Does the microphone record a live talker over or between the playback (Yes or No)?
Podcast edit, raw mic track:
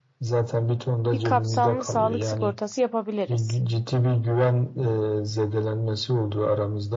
Yes